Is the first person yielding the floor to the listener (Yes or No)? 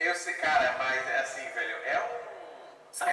Yes